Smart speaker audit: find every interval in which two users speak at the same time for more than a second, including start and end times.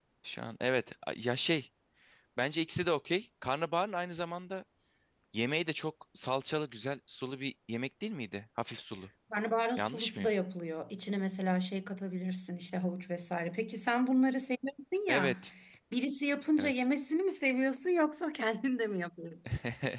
none

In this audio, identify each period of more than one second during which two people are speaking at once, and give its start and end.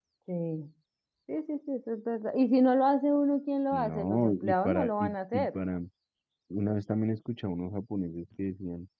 3.7-5.6

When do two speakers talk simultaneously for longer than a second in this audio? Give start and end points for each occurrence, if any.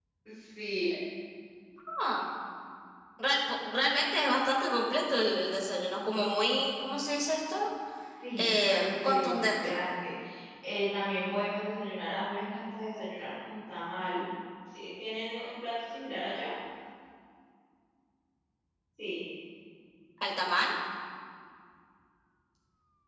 8.4-9.7

